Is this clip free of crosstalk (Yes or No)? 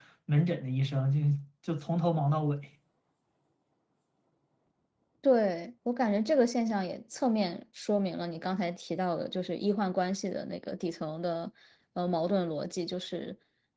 Yes